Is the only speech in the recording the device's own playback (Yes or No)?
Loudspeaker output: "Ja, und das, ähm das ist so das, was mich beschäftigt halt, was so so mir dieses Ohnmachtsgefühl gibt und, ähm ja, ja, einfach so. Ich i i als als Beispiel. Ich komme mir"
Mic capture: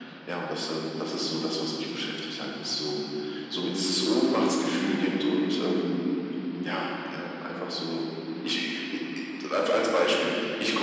Yes